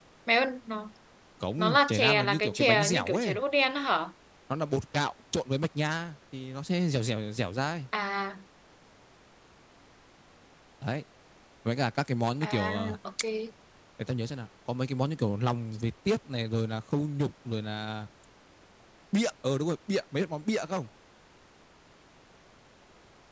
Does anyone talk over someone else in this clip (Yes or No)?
Yes